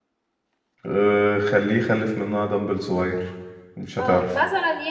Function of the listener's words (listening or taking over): taking over